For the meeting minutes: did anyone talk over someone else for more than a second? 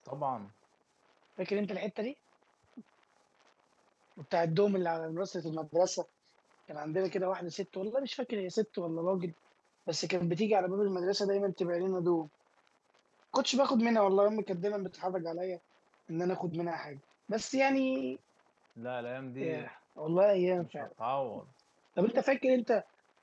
No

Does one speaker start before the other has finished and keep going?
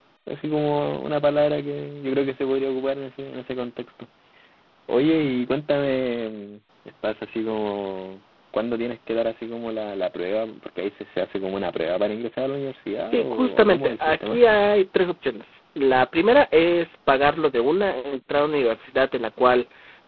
Yes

